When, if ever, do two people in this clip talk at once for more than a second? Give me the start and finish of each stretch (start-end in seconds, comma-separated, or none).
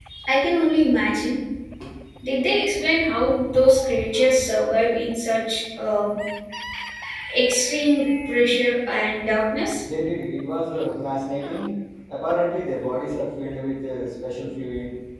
none